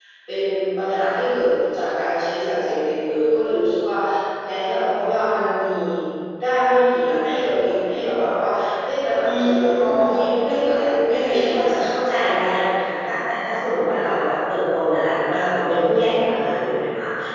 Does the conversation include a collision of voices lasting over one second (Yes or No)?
Yes